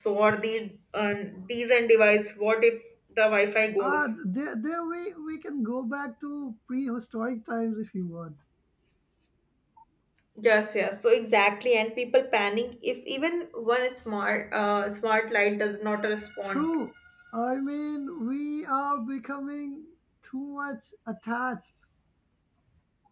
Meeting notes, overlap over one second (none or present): none